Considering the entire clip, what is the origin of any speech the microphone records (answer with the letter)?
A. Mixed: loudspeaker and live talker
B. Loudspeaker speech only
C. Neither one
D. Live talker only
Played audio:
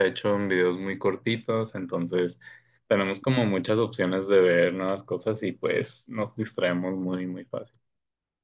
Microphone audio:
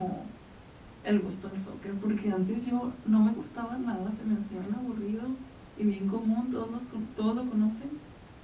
D